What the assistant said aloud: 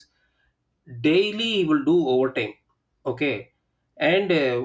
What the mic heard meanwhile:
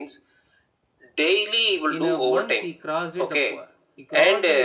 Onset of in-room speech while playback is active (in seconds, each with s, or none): 2.0 s